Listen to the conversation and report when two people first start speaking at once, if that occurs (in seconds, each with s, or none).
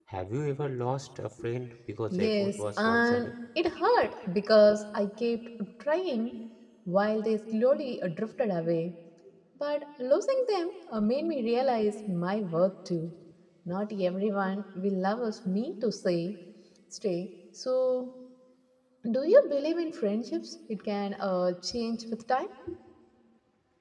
2.1 s